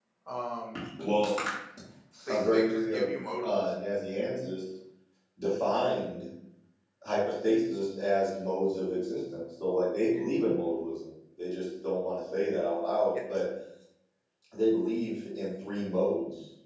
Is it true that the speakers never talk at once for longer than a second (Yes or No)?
No